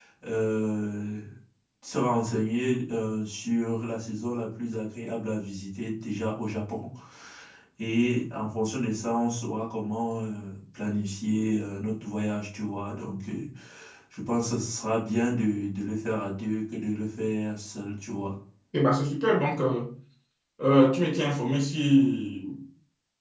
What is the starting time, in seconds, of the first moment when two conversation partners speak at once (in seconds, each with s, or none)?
none